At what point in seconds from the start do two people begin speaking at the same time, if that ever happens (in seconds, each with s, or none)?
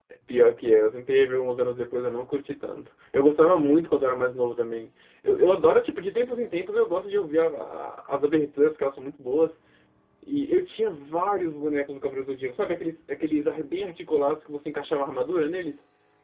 none